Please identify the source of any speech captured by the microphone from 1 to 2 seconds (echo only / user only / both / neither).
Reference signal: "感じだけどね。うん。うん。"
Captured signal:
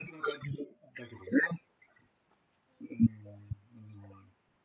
echo only